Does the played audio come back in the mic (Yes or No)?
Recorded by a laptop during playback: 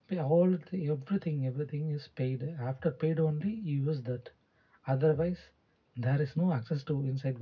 No